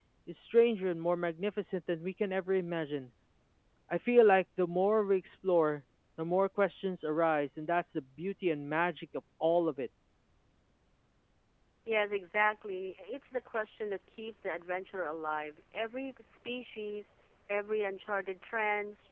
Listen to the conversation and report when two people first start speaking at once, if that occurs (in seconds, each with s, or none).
none